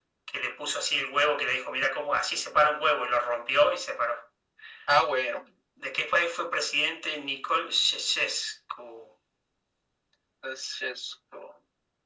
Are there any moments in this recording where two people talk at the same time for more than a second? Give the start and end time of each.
none

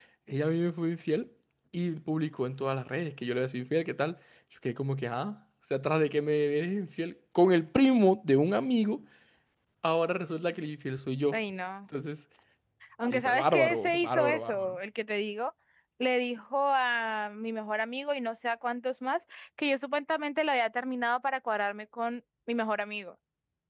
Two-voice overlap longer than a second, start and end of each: 13.1-14.8

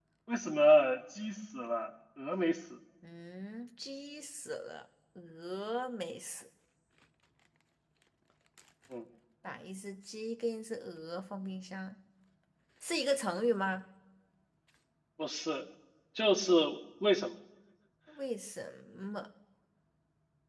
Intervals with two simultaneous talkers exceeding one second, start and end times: none

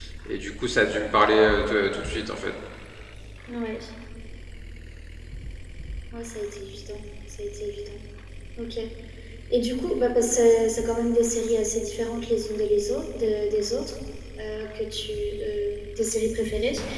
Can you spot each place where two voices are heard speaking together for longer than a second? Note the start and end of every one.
none

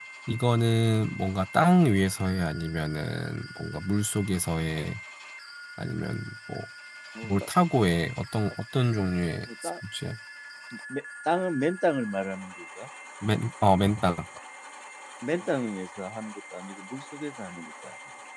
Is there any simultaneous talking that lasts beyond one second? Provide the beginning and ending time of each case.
none

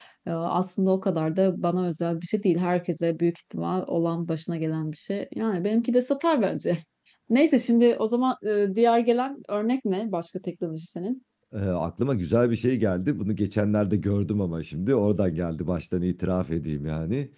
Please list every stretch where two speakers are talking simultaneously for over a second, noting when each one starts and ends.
none

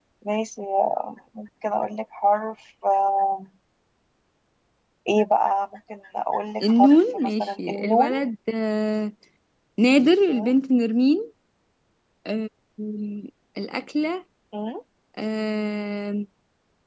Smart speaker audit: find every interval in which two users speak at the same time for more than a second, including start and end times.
6.6-8.1

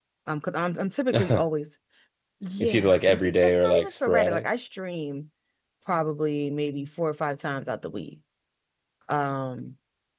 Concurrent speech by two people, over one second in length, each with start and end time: 2.6-4.5

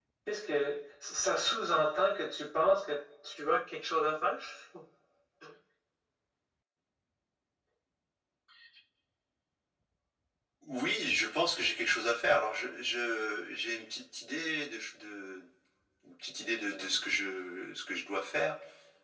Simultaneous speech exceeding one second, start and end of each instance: none

